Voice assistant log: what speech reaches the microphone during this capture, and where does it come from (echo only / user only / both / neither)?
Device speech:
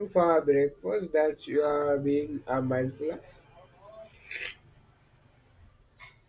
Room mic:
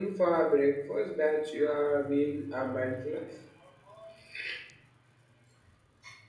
echo only